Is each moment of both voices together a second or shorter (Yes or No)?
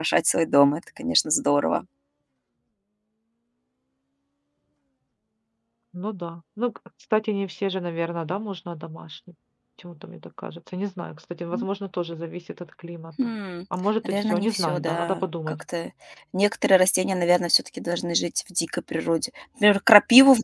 No